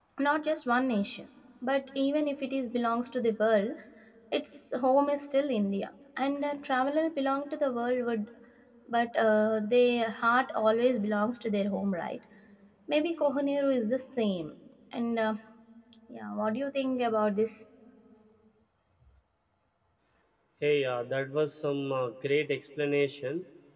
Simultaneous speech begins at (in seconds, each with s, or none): none